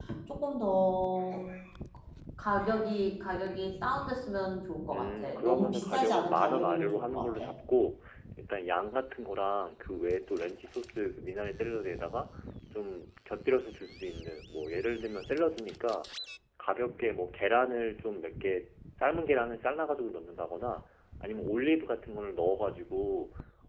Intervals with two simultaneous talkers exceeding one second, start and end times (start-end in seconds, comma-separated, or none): 4.9-7.5